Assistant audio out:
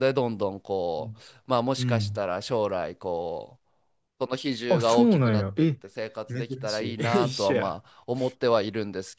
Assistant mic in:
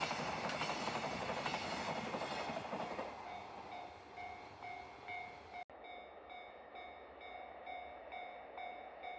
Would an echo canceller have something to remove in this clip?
No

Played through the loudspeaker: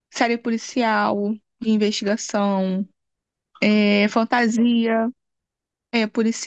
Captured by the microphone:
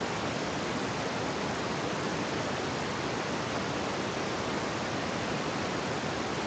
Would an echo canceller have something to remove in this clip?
No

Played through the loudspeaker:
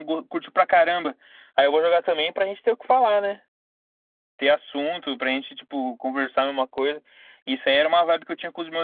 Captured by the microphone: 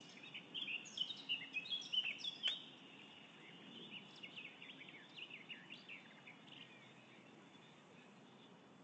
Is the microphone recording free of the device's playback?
Yes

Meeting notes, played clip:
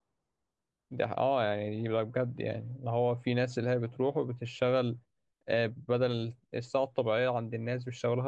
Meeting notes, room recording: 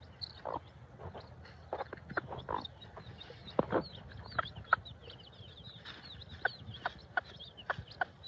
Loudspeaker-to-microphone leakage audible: No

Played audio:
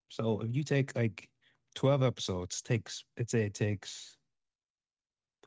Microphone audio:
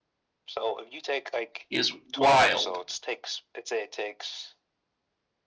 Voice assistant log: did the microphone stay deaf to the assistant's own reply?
No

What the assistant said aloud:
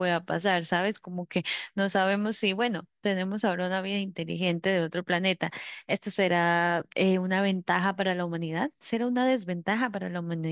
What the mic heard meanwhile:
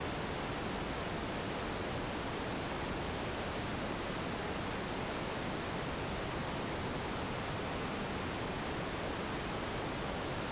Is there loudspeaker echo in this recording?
No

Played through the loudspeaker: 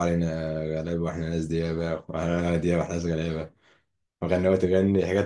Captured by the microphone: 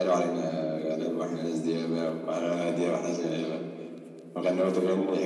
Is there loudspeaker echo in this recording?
Yes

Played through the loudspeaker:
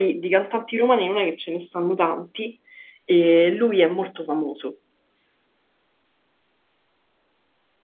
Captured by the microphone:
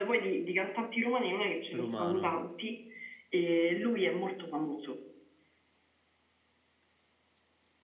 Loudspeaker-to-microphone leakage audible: Yes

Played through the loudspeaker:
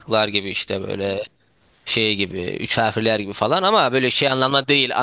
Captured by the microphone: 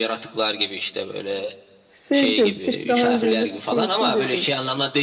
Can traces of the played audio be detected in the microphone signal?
Yes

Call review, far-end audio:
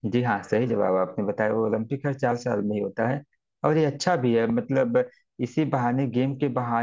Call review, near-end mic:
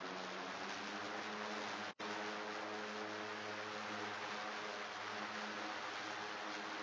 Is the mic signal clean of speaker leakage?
Yes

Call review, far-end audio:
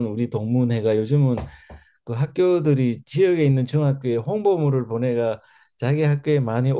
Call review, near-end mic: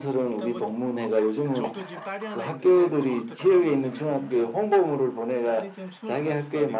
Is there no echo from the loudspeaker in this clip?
No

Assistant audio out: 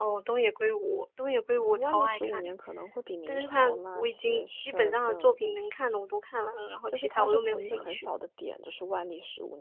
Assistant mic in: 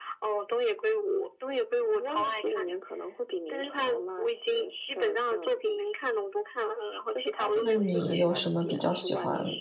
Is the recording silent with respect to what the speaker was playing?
No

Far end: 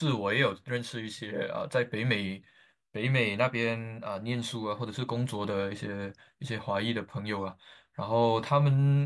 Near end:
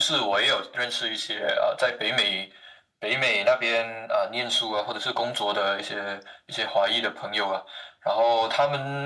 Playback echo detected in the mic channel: Yes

